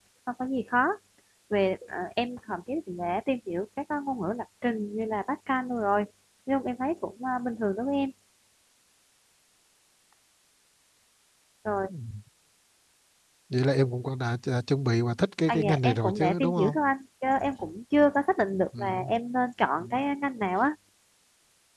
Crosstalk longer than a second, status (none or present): present